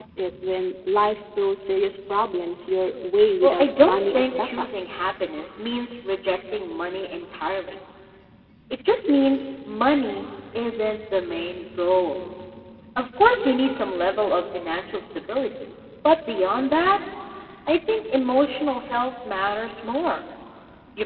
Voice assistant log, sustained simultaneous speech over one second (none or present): present